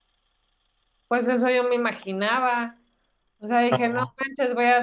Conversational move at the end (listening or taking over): listening